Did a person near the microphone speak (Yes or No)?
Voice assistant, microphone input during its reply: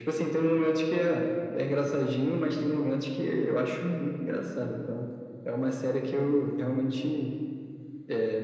No